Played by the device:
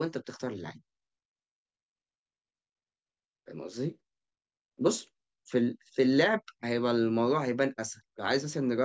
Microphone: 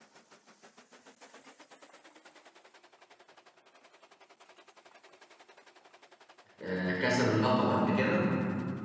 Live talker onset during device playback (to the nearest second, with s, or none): 7 s